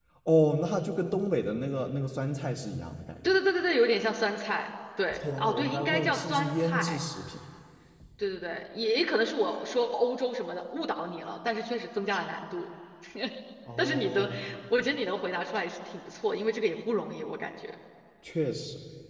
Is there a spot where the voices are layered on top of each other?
Yes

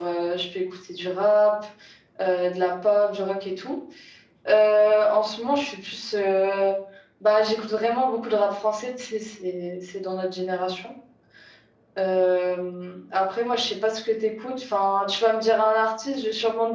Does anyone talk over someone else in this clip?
No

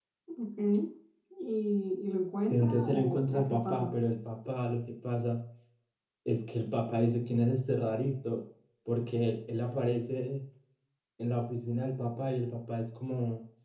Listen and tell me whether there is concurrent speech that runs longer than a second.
Yes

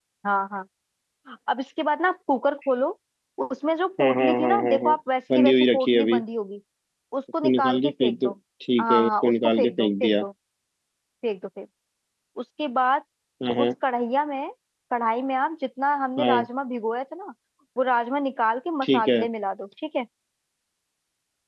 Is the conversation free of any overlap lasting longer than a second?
No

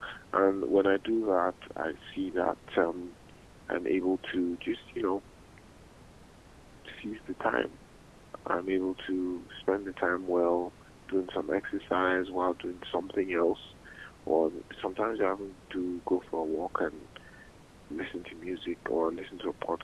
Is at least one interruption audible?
No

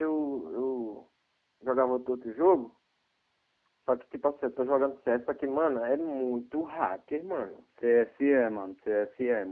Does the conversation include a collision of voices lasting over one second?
No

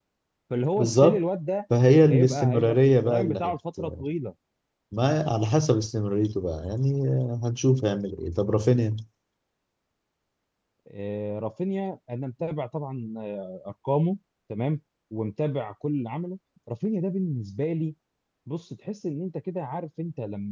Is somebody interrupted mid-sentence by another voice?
Yes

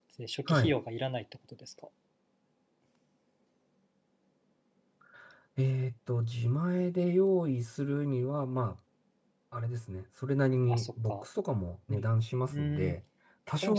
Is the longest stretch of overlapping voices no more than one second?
Yes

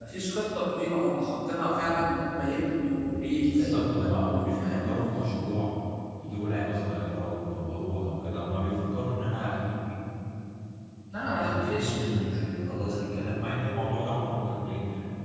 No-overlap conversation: No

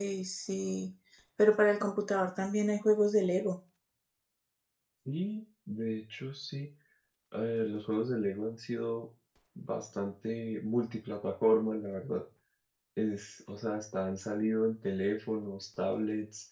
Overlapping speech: No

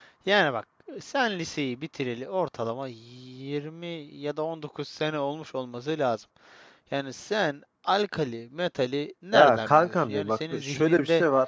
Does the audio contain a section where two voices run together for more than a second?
Yes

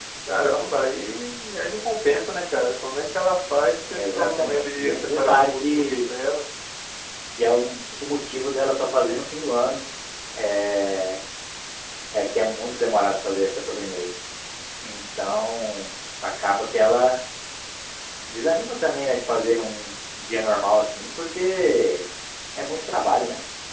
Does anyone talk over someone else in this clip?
Yes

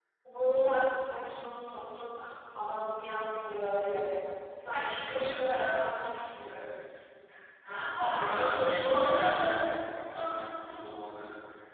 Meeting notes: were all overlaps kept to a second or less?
No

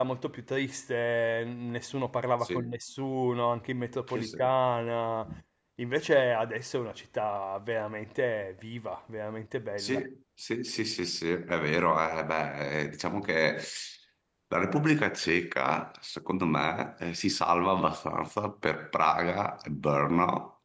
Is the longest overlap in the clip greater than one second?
No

